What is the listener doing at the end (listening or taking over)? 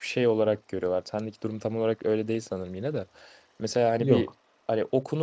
listening